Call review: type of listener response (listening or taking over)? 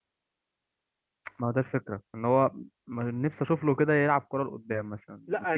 taking over